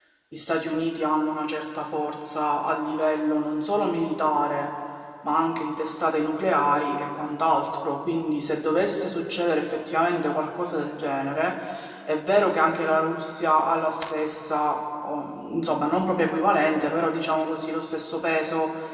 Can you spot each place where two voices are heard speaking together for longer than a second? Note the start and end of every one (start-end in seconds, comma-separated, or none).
none